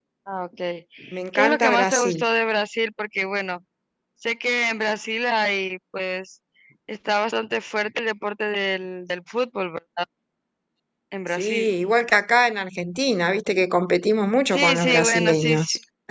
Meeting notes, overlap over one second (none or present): present